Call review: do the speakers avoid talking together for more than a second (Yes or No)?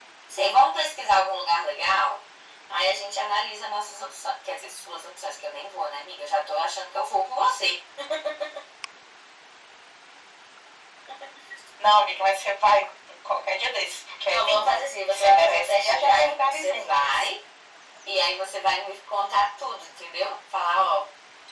No